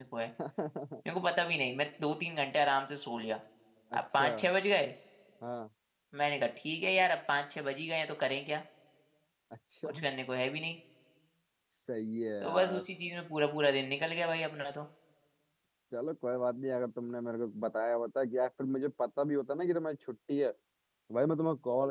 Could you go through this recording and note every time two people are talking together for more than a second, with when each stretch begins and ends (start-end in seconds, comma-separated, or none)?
none